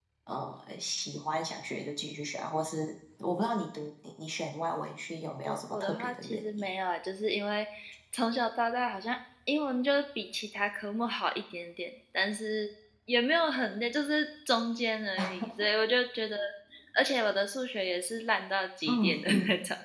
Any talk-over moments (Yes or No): Yes